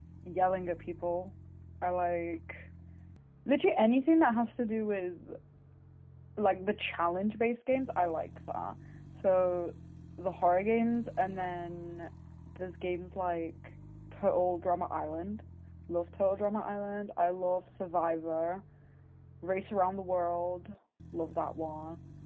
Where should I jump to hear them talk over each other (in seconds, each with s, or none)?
none